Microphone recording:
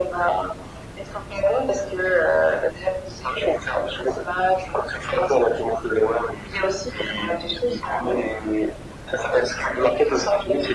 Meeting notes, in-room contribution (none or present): none